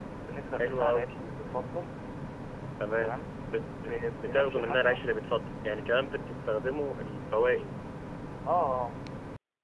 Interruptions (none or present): present